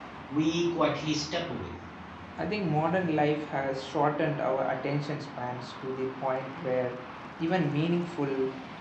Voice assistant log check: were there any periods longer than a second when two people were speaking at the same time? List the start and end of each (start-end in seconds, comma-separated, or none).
none